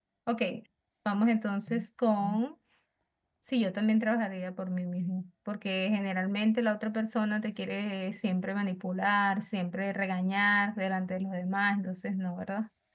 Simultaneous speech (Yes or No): No